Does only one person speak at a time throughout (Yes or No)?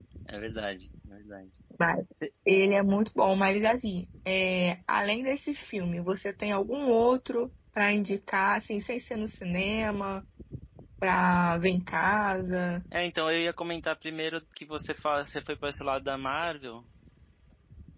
Yes